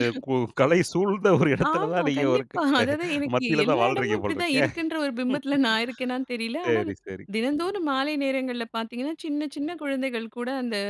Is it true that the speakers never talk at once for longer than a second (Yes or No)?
No